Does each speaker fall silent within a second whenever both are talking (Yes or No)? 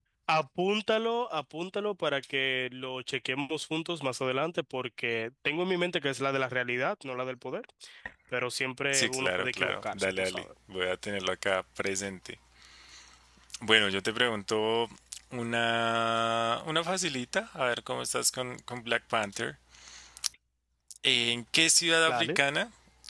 No